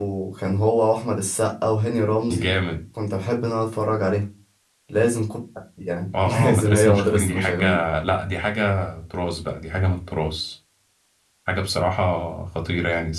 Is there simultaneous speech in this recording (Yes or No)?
Yes